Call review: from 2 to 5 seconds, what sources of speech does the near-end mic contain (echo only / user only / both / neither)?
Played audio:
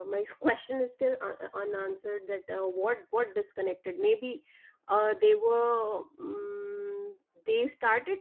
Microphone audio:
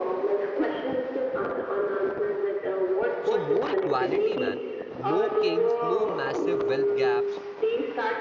both